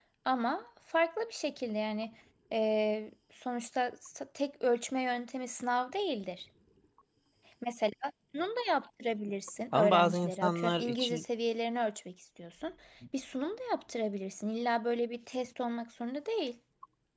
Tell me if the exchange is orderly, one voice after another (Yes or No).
No